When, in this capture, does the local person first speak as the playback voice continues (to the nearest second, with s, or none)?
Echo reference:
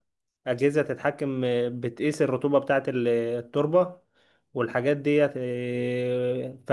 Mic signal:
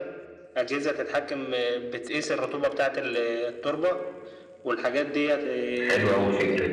6 s